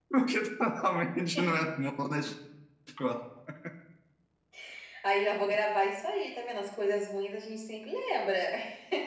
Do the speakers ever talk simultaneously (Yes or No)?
No